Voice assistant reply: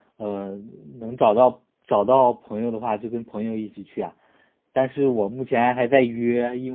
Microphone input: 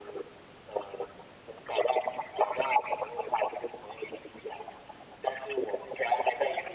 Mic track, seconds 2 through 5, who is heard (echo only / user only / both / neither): echo only